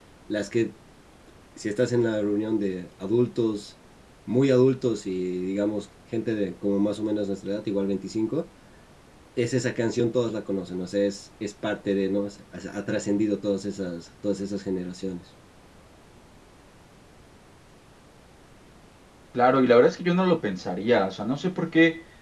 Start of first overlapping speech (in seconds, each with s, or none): none